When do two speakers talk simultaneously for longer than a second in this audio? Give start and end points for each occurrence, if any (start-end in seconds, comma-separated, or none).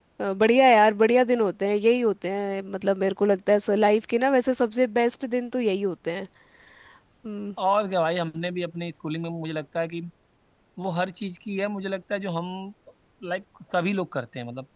none